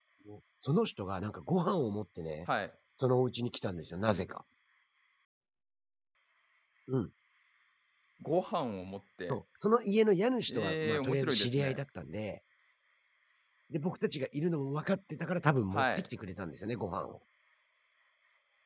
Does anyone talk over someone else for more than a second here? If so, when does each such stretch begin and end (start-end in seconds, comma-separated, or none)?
10.5-11.8